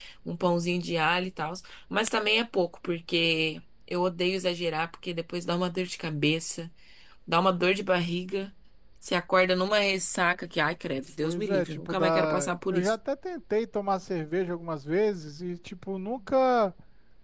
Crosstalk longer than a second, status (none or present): present